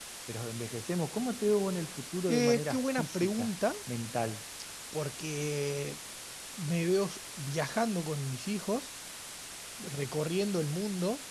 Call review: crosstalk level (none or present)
present